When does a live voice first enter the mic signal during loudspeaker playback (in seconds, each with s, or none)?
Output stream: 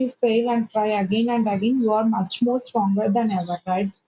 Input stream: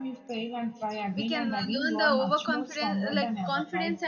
1.1 s